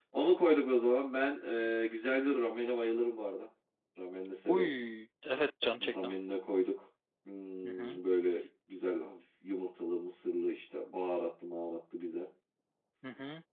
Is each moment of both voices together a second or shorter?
Yes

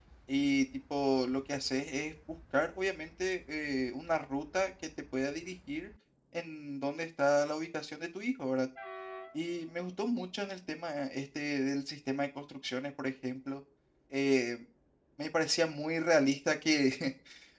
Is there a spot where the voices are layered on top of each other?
No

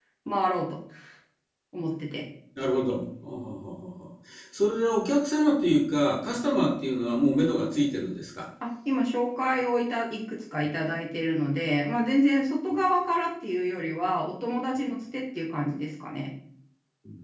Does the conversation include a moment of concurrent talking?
No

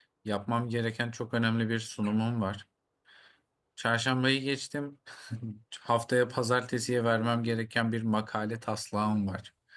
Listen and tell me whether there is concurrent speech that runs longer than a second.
No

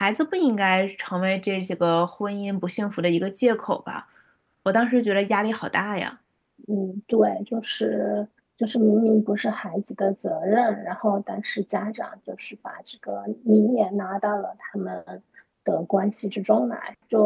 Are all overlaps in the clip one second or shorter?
Yes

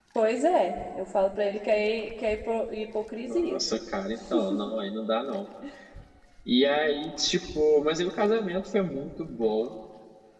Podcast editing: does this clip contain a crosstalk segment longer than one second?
No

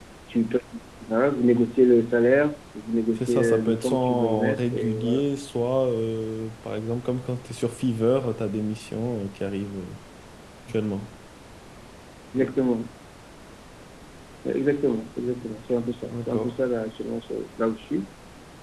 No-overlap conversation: No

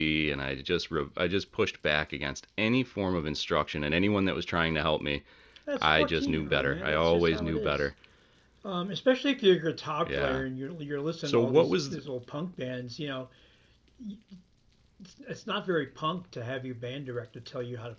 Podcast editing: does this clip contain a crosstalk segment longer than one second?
Yes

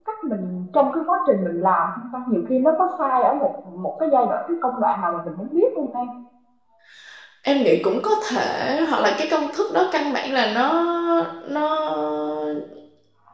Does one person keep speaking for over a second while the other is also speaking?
No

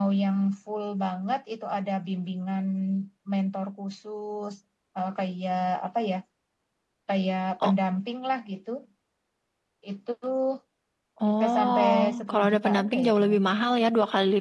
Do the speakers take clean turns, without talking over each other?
No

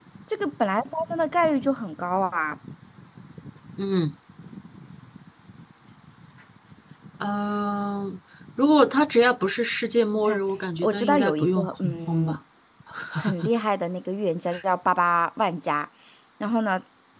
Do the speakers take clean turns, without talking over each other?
No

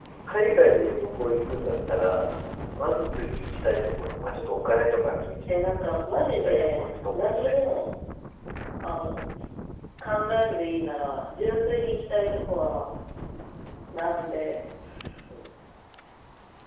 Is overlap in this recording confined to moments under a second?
No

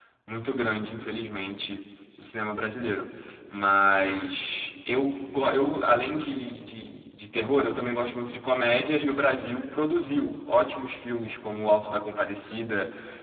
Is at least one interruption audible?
No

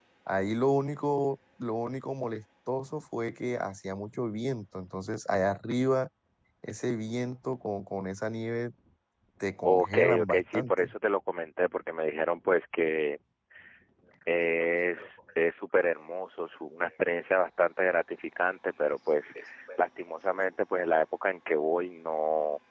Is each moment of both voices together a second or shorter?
No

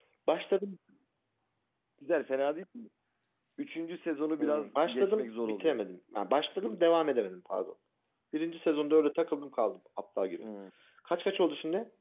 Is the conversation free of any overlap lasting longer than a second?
No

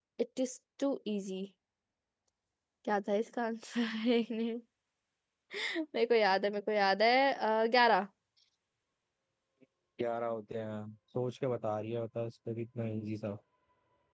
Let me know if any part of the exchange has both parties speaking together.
No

